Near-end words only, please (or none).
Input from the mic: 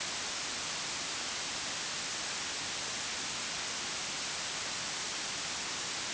none